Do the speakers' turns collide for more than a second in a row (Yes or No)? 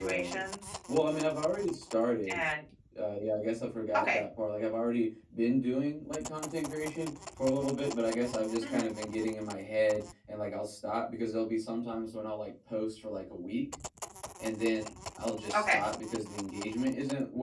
No